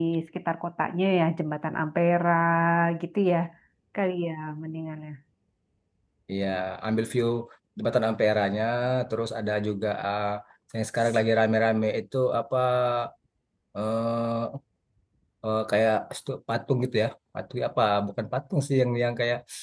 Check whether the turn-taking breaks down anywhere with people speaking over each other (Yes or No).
No